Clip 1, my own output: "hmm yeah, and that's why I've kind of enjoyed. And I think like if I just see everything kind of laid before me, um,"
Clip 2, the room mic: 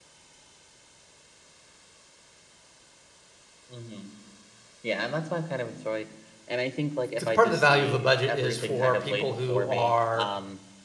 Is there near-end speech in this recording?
Yes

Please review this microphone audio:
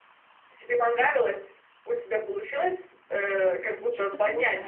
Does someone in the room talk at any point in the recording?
Yes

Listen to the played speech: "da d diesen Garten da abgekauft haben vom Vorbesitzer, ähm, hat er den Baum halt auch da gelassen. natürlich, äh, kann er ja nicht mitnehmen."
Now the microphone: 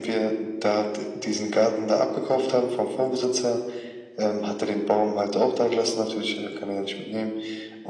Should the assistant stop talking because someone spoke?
No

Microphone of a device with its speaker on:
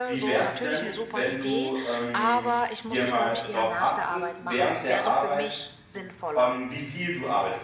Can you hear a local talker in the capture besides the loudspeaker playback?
Yes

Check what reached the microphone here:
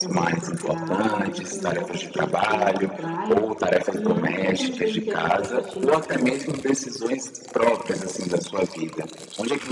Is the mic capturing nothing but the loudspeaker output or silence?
No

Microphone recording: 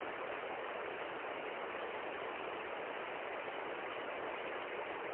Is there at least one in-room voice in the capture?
No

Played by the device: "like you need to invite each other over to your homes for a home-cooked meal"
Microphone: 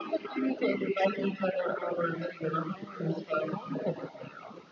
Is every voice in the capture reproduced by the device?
Yes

